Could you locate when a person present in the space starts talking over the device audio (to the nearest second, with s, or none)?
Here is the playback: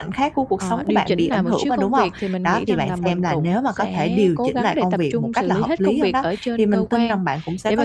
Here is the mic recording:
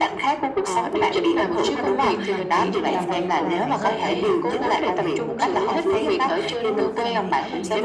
2 s